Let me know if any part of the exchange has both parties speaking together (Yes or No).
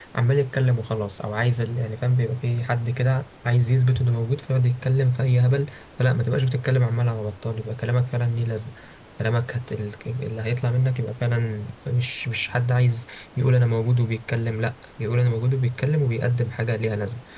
No